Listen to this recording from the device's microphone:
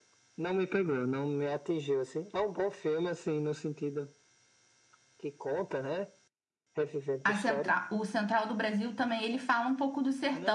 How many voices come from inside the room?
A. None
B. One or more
B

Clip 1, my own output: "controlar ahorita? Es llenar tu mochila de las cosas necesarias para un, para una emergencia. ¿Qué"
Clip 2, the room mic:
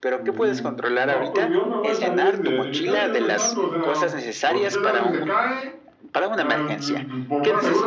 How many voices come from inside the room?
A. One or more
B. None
A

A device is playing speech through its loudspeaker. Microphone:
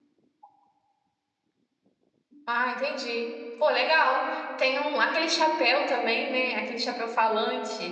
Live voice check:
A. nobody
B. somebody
B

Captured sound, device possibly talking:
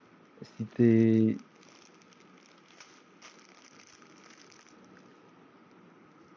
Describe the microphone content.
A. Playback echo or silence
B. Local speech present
B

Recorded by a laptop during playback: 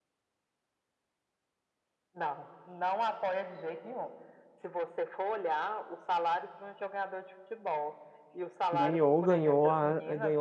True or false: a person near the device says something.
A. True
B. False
A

